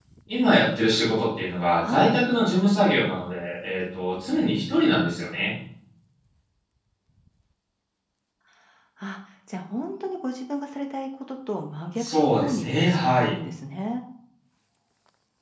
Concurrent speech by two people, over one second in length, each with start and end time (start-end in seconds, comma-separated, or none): 12.0-13.3